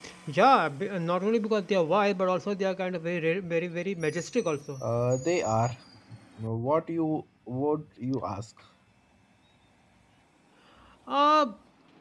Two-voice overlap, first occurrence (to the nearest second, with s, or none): none